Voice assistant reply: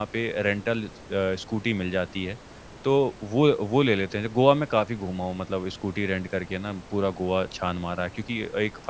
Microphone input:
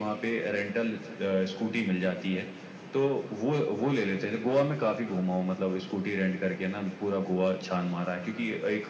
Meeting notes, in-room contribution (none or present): none